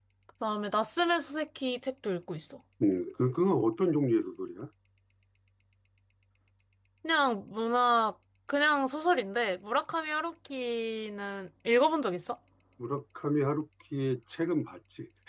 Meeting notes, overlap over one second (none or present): none